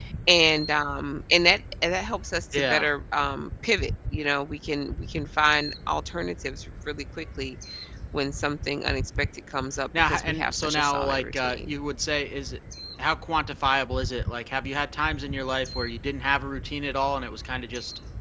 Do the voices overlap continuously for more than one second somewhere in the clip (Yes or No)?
Yes